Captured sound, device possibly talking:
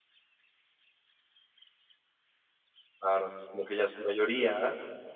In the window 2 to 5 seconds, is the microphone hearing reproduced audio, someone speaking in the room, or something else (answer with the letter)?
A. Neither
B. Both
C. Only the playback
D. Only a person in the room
D